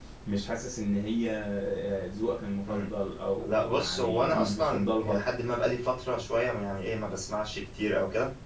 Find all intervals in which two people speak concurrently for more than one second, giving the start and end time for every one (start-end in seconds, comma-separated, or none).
3.5-5.2